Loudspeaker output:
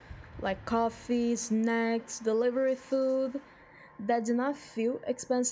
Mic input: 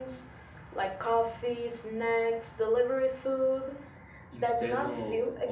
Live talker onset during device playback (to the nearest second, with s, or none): 4 s